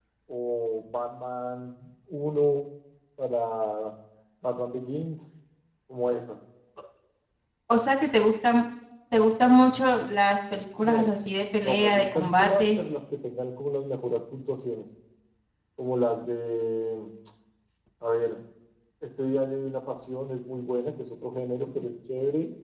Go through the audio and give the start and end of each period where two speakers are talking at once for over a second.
11.6-12.8

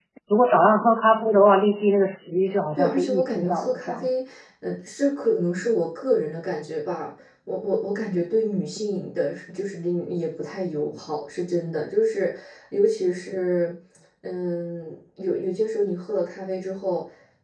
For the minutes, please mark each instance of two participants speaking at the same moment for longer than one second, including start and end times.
2.8-4.1

